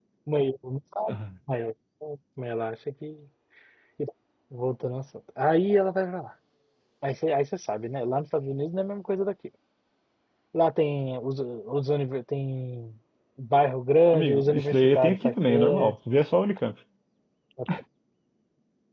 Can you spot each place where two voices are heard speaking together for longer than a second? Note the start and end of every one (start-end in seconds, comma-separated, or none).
14.1-15.9